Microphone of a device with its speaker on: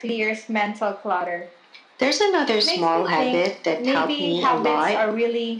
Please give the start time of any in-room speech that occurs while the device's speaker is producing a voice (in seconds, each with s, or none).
none